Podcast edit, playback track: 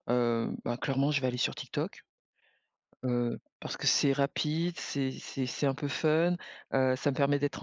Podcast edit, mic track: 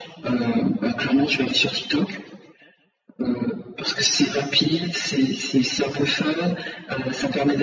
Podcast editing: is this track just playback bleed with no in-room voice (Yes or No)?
Yes